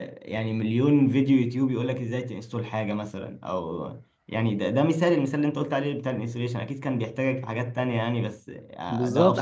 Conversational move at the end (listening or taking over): taking over